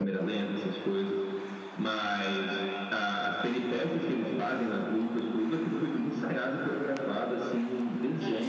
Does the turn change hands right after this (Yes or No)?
Yes